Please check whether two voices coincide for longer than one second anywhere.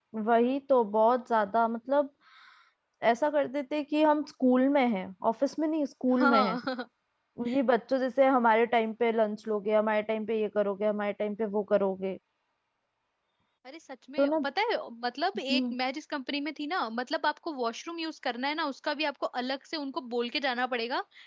No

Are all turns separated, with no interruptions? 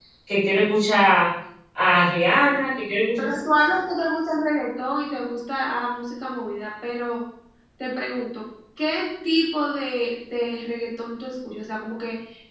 Yes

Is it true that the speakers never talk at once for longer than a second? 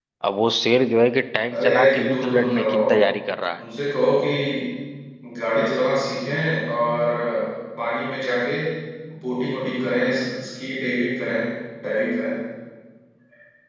No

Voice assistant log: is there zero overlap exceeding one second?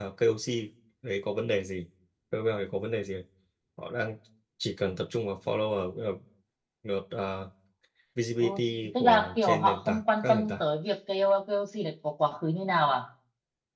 No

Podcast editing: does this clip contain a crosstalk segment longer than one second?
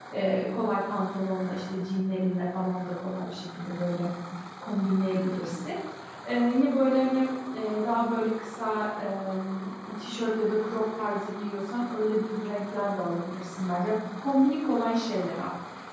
No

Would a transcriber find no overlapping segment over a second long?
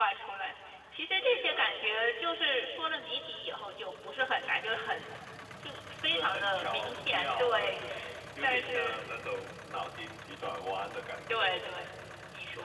No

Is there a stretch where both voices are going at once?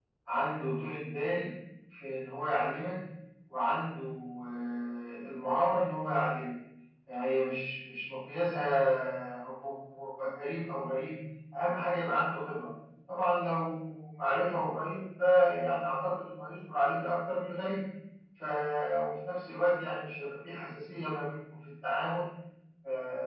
No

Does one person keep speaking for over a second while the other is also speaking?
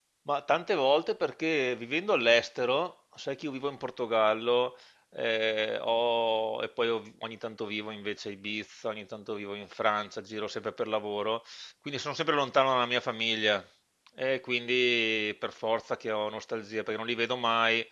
No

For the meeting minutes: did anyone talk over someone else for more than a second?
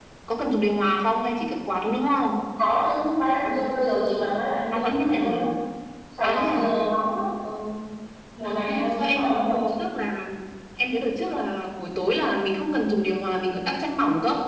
Yes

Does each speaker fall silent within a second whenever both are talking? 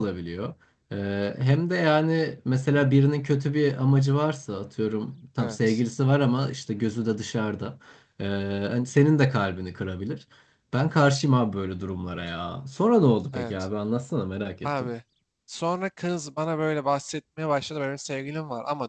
Yes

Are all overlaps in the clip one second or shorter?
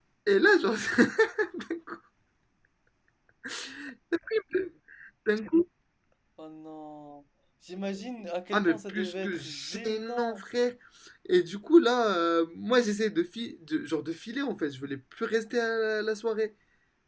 No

